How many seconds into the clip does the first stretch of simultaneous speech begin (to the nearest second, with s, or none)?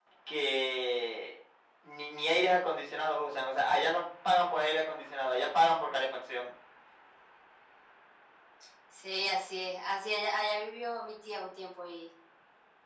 none